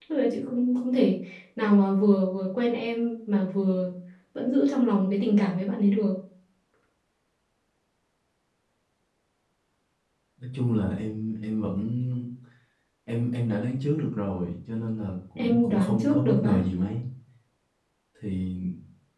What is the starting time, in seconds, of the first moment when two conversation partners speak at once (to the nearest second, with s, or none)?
15 s